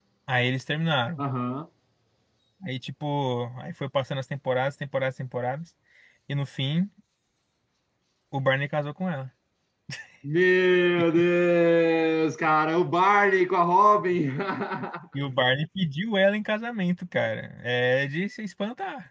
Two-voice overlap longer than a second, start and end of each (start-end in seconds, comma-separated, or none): none